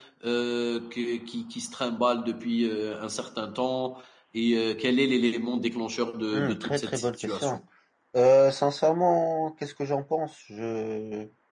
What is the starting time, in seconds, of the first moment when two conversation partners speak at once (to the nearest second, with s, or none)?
6 s